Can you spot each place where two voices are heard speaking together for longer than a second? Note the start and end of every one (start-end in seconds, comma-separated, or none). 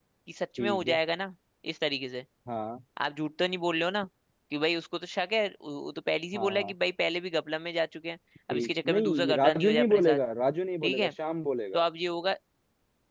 8.5-10.2